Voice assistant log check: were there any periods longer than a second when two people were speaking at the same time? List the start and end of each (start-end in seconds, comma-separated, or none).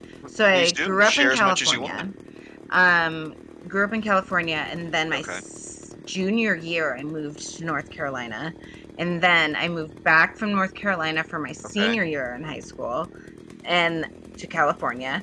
0.5-2.0